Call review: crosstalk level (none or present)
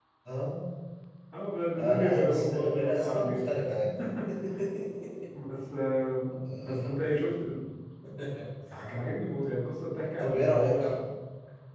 present